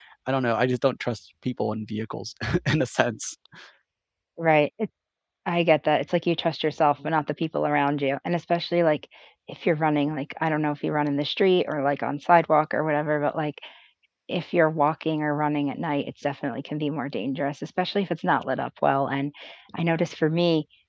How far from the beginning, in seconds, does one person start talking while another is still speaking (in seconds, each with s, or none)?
none